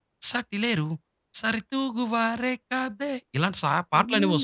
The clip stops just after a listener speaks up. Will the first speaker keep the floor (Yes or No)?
No